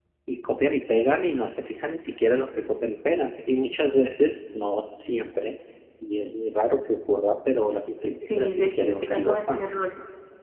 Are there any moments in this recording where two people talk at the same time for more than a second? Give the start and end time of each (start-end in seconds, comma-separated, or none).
8.2-9.7